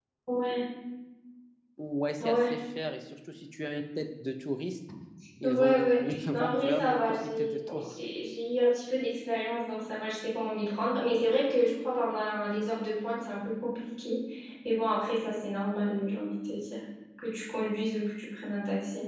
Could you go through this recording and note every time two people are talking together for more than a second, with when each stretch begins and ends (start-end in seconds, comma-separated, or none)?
5.4-7.9